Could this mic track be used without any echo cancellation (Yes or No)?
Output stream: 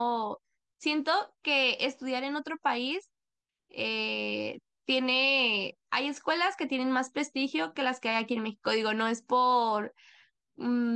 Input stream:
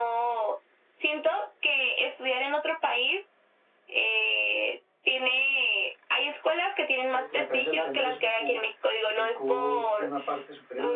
No